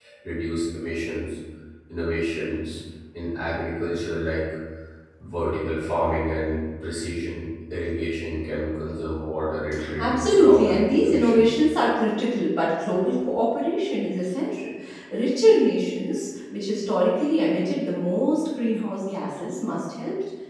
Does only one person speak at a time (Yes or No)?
No